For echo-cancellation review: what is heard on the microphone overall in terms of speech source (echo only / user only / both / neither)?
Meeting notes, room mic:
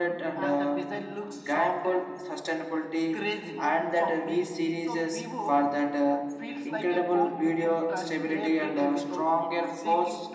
echo only